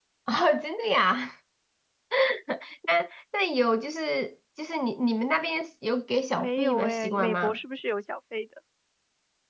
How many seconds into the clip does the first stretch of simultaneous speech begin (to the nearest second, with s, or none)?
6 s